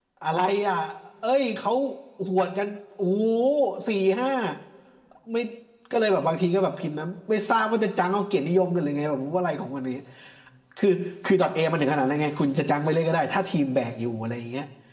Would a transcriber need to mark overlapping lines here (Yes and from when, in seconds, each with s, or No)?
No